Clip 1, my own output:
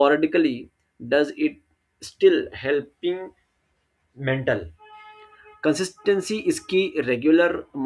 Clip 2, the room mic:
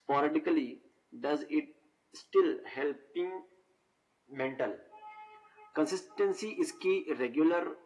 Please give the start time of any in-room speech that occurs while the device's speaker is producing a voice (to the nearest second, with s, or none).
none